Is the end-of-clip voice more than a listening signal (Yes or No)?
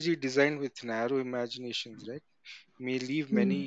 No